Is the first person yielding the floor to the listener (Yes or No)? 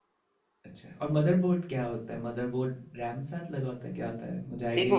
Yes